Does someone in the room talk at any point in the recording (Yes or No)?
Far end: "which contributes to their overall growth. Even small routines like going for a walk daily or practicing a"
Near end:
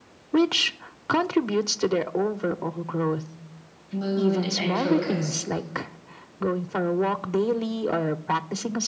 Yes